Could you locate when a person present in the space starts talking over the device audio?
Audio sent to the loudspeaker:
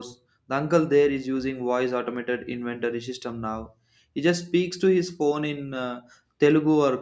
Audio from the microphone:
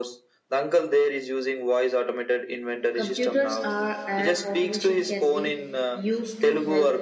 2.9 s

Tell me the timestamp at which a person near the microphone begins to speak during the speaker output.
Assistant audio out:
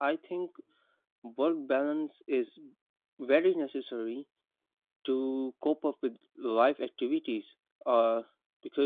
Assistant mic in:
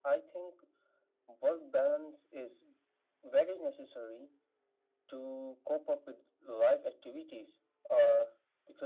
none

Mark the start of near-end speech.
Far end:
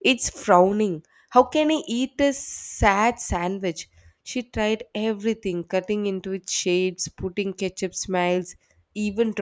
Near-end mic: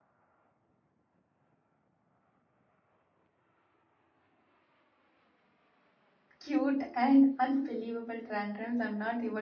6.4 s

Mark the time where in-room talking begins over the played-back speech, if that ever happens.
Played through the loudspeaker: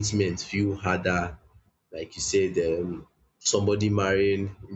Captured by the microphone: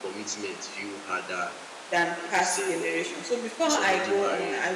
1.9 s

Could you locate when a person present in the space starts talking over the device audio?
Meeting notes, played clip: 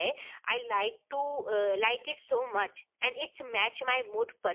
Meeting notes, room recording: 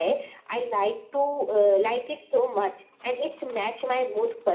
none

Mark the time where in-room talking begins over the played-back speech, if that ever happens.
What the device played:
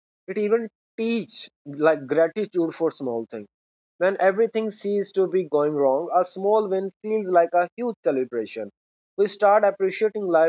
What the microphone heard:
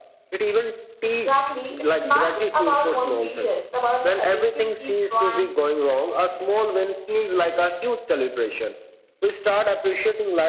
1.0 s

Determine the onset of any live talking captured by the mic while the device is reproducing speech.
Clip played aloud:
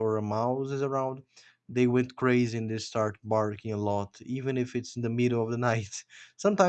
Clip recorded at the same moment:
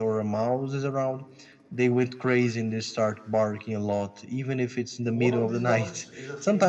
5.0 s

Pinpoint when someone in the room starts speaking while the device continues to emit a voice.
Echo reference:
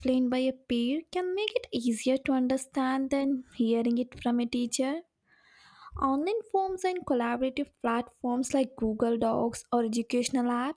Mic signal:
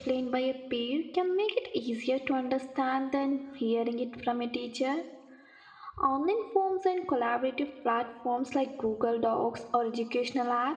none

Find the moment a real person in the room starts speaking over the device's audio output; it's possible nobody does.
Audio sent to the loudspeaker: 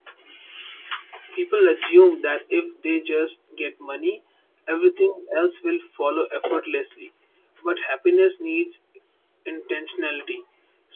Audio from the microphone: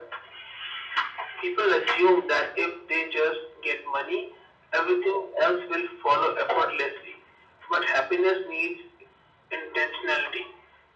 none

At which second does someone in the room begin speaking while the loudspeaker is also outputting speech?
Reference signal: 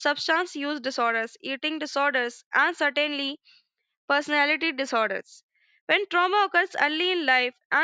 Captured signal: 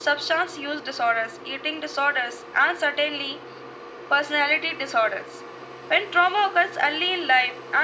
none

